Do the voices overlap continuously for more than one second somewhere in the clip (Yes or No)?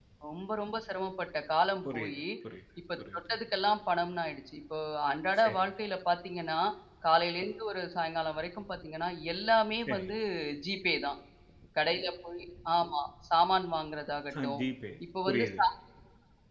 No